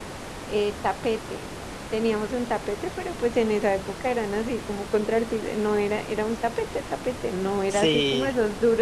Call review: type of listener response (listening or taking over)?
listening